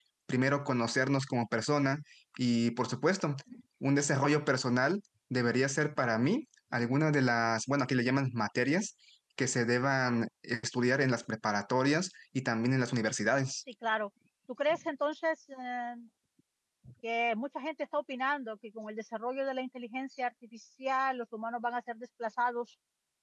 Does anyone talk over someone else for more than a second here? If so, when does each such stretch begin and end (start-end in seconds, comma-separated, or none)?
none